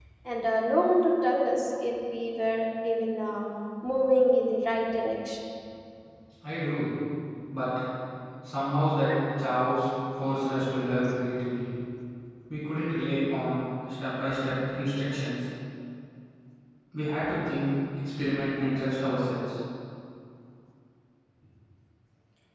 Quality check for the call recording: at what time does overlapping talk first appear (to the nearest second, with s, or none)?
none